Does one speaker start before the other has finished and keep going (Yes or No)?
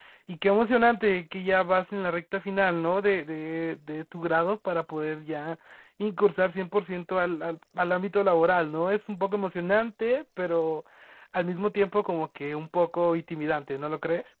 No